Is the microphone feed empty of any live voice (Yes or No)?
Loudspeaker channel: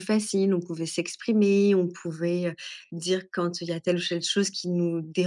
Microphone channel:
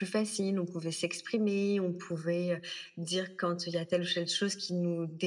Yes